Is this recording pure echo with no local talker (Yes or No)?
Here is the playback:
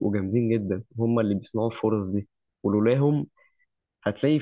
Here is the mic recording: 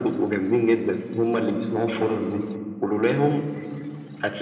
Yes